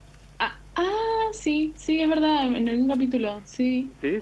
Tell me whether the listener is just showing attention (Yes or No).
No